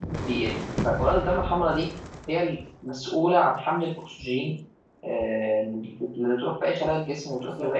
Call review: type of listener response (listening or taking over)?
taking over